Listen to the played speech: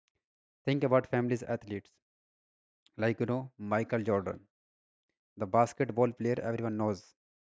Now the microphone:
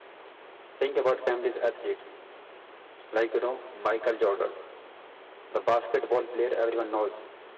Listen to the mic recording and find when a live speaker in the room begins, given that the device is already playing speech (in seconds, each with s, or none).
none